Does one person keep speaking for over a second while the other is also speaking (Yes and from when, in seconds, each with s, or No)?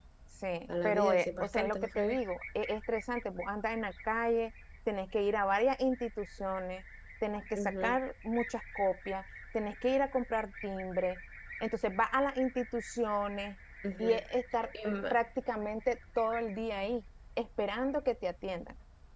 Yes, from 0.7 s